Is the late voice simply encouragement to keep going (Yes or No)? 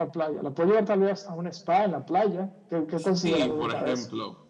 No